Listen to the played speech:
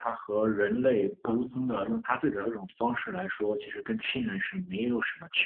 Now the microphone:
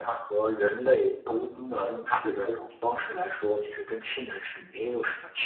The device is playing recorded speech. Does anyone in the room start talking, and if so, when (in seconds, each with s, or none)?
none